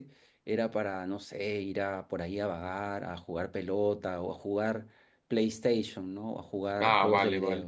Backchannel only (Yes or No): No